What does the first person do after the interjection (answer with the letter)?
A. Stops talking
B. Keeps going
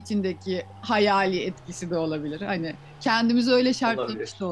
B